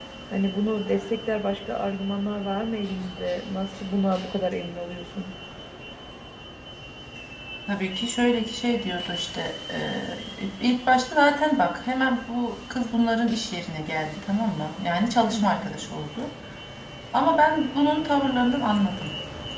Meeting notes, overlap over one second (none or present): none